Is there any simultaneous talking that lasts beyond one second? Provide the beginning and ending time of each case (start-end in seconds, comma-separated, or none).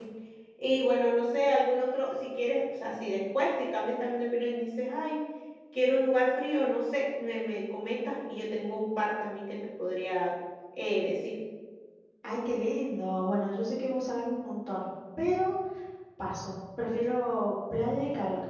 none